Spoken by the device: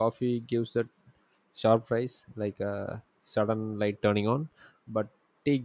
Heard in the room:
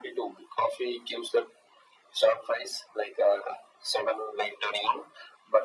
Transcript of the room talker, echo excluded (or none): none